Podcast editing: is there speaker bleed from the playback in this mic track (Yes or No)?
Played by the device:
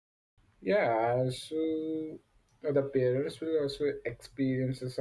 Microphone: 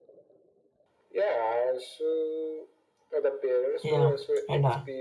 Yes